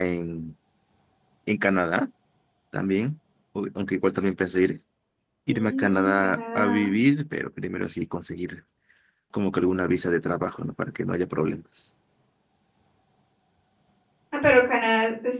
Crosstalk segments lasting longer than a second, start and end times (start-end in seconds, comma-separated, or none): 5.5-6.8